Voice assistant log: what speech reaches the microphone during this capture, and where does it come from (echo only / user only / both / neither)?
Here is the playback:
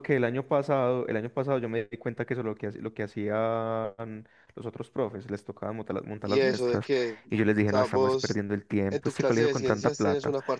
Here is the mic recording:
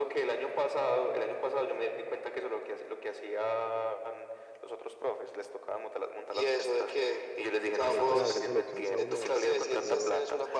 both